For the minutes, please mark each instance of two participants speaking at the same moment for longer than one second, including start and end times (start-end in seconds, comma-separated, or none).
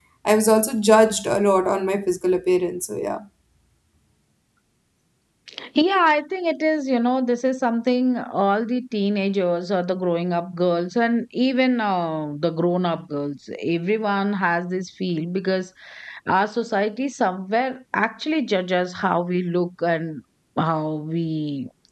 none